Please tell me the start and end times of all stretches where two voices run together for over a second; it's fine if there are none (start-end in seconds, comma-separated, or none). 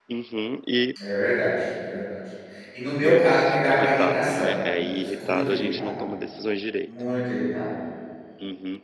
3.0-6.1